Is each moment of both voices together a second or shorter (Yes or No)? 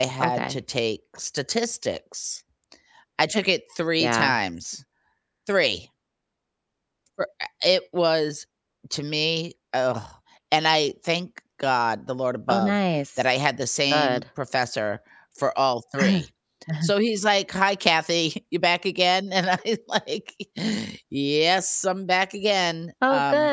Yes